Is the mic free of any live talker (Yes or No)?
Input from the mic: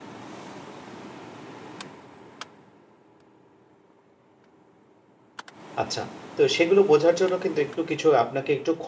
No